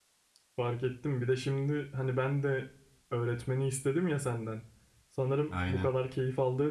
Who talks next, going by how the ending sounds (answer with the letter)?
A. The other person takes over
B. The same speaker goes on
B